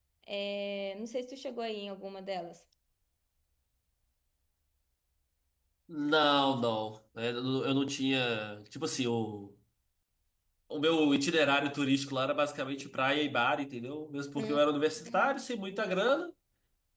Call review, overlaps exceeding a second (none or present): none